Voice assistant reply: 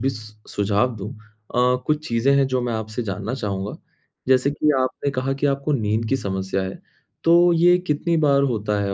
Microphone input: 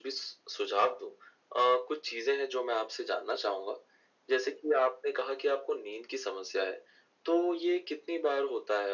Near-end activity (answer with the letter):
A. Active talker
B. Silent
B